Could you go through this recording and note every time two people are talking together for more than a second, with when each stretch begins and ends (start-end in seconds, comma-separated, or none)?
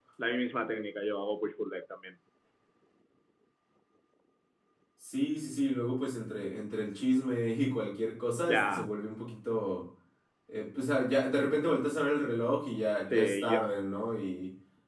none